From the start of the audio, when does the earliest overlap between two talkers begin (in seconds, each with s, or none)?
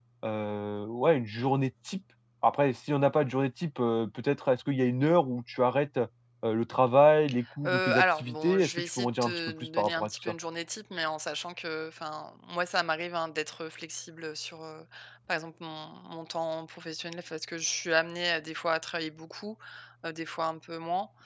7.4 s